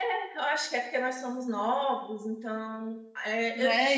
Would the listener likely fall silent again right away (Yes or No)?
No